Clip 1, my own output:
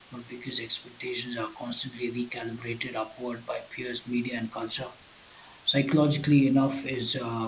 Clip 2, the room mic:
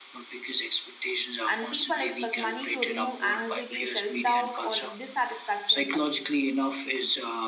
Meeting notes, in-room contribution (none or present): present